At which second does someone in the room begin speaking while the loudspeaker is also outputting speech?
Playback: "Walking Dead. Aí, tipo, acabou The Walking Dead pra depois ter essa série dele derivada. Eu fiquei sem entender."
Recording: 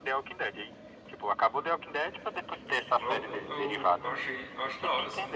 3.0 s

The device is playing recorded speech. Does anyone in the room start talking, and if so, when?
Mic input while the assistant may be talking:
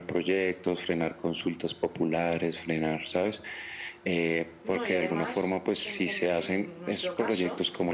4.6 s

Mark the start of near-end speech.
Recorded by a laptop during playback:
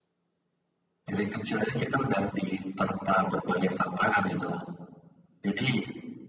none

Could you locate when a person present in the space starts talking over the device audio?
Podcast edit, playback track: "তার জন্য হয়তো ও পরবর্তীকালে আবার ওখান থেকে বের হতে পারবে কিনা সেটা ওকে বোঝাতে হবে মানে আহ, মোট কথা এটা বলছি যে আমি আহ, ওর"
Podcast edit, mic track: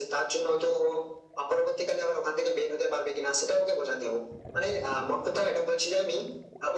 none

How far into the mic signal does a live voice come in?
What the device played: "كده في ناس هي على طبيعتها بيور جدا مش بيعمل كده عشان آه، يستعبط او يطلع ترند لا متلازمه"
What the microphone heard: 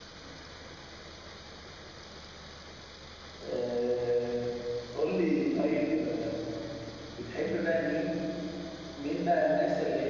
3.4 s

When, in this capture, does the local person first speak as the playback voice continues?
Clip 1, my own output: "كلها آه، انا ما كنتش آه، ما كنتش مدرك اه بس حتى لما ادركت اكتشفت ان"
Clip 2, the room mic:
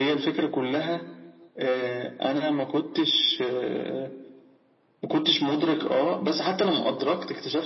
none

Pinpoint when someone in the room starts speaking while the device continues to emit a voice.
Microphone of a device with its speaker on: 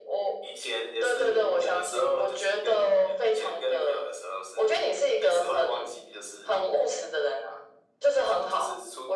none

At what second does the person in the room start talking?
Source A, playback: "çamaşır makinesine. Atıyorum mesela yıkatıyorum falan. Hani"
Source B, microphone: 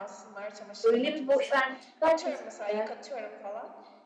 0.8 s

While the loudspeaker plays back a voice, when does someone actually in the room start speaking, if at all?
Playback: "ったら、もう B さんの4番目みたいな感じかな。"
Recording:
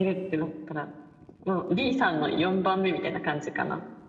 none

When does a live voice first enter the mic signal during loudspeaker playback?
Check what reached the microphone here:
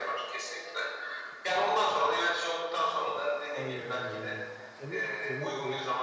3.5 s

